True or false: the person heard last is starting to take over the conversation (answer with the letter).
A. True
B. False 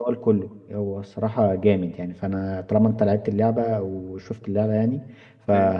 B